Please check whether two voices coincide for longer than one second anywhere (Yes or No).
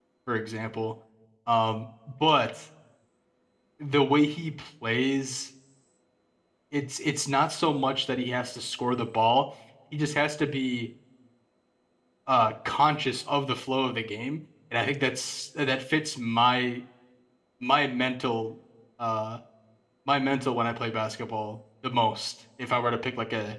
No